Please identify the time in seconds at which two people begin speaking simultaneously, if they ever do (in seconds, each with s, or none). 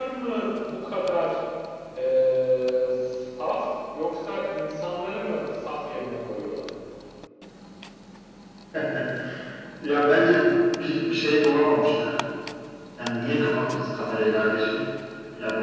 none